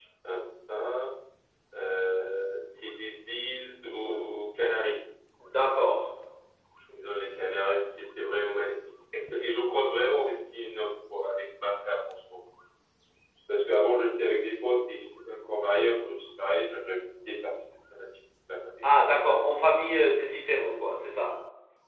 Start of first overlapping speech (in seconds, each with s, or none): none